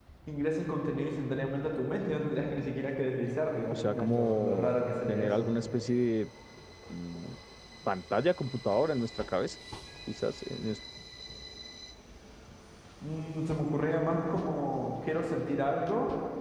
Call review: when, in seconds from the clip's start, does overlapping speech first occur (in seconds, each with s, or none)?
3.7 s